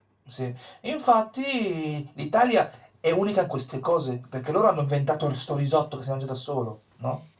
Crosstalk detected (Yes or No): No